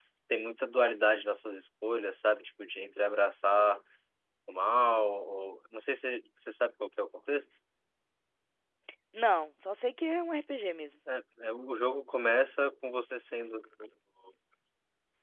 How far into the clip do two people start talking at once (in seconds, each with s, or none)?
none